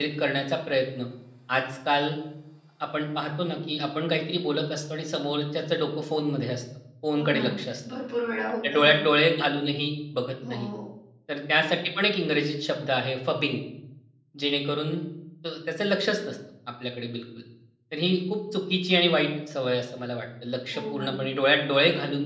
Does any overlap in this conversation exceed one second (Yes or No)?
No